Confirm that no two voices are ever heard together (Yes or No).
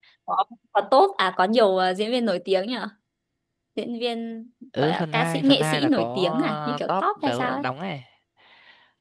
No